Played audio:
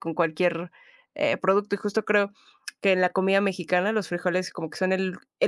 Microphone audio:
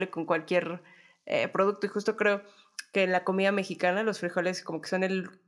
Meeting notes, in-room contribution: none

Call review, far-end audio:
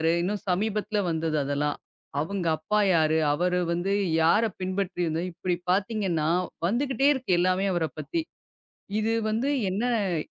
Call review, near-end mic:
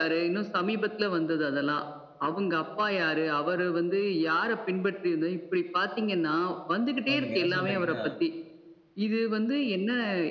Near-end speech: present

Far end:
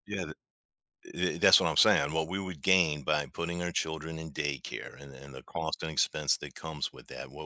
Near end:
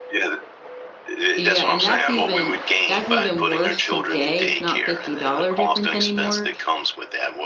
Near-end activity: present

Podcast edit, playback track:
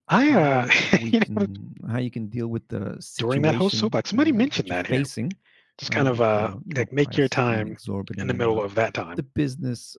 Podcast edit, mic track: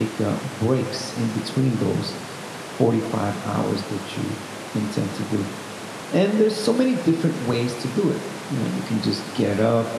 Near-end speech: present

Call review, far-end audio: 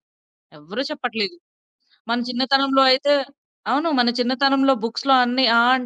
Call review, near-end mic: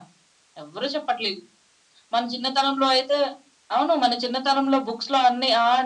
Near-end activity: none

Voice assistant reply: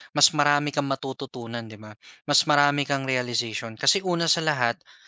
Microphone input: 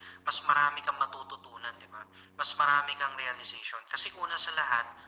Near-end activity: none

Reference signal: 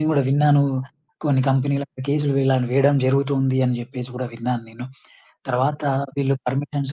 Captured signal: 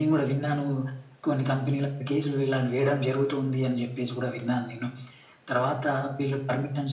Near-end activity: none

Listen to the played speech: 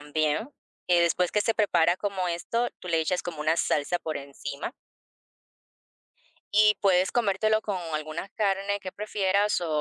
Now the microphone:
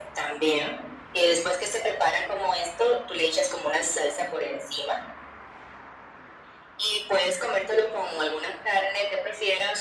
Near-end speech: none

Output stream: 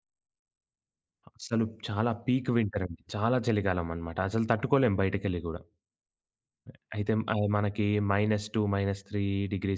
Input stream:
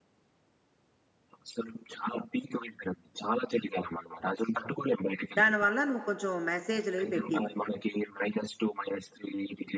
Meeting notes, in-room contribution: present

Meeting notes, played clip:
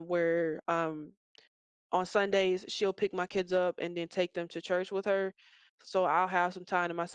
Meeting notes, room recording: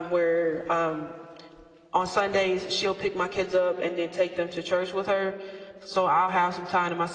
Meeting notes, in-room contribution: none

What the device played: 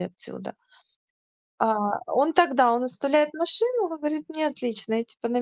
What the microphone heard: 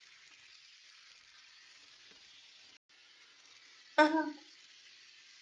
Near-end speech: present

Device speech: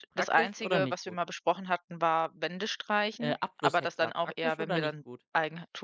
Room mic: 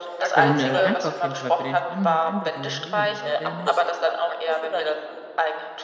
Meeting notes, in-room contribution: present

